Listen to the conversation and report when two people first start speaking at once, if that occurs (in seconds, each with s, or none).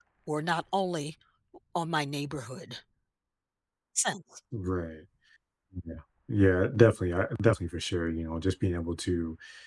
none